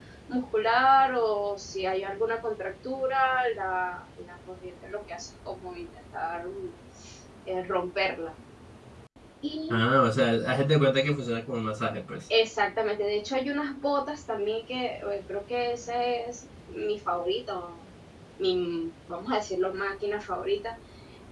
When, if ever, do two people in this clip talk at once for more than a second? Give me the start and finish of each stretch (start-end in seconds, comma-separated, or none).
none